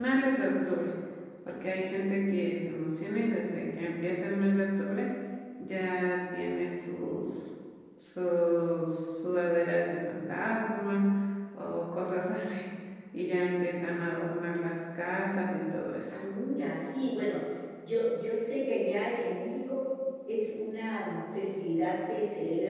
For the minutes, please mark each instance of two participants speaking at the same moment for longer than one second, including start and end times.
none

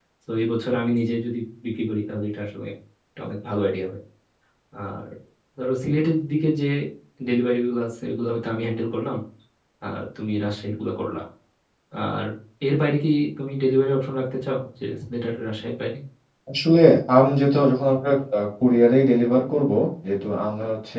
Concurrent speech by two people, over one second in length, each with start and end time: none

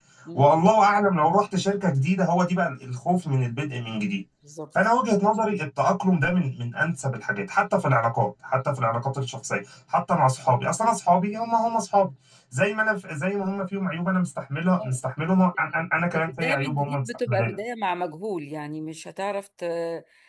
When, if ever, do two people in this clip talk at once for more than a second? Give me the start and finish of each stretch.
16.1-17.6

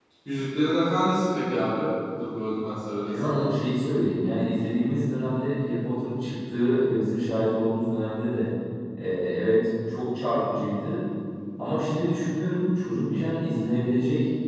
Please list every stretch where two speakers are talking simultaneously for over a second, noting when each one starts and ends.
none

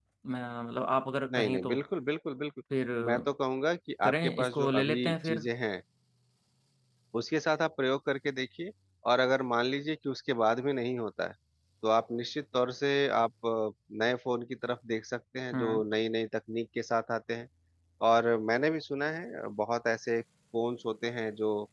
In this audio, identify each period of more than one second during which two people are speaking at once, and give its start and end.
4.0-5.4

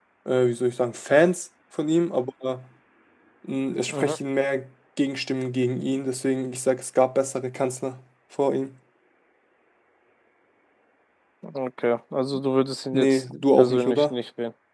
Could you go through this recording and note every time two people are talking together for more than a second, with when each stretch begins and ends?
12.9-14.2

